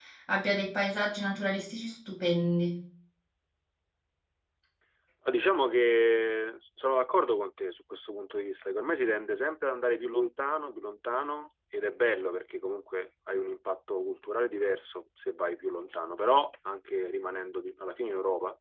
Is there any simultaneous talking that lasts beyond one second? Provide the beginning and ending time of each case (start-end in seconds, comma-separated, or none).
none